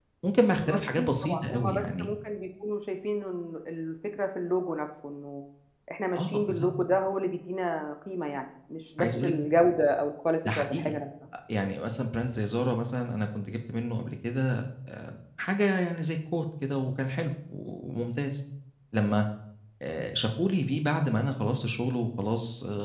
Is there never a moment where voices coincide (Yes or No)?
No